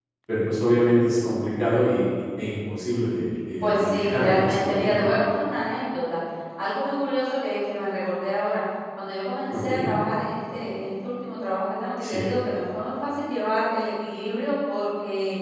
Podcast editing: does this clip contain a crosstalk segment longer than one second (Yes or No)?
Yes